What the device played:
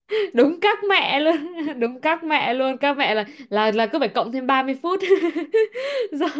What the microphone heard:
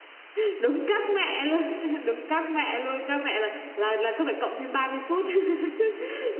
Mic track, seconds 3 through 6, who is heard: echo only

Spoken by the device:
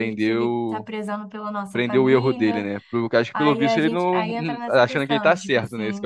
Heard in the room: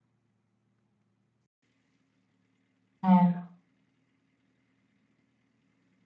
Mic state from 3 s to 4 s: user only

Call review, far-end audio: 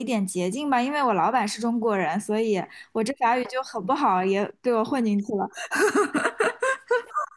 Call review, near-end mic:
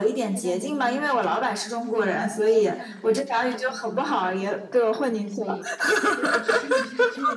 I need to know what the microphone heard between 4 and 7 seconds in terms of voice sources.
both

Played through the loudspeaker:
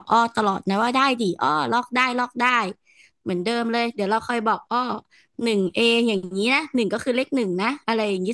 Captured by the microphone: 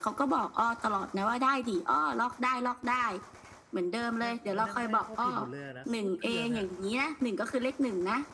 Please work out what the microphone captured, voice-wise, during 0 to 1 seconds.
echo only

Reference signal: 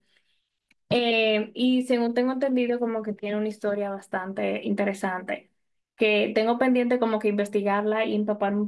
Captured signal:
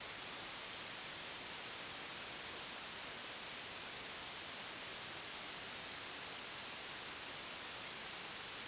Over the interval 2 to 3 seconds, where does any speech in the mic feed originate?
neither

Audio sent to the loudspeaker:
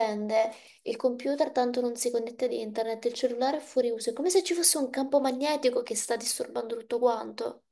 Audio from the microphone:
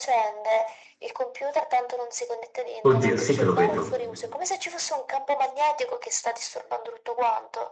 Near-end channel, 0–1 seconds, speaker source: echo only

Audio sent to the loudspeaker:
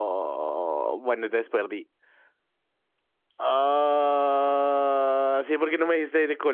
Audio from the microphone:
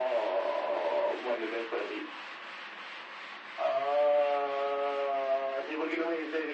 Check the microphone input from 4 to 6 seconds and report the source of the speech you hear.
echo only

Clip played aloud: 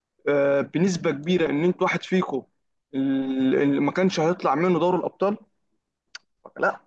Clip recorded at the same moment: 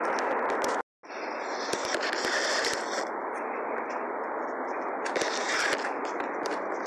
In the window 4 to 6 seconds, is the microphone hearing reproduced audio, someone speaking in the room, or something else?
neither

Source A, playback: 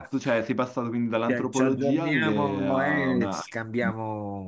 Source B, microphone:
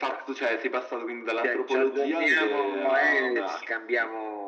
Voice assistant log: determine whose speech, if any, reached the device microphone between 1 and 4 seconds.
echo only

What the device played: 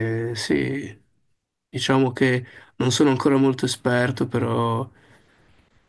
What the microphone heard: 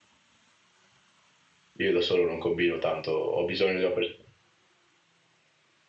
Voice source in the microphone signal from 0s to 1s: neither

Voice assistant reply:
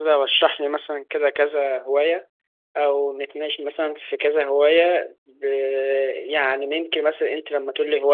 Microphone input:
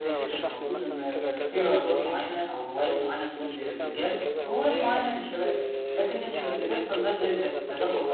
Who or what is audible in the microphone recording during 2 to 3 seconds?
both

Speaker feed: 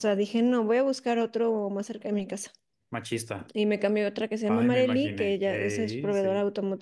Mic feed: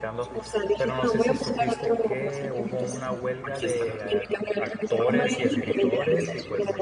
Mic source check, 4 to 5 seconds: both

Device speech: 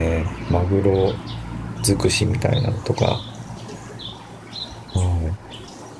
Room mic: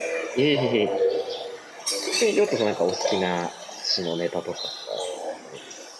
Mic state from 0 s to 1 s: both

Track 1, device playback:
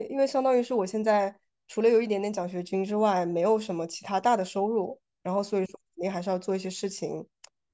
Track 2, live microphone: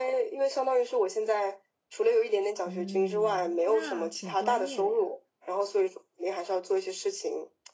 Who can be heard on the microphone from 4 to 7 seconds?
both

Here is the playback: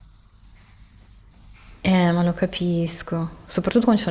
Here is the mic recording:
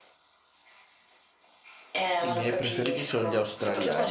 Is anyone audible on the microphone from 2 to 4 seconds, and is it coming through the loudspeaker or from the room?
both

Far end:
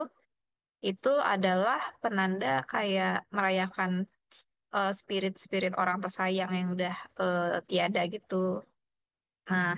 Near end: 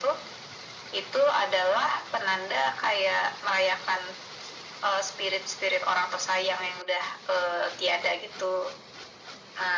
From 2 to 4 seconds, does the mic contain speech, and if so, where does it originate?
echo only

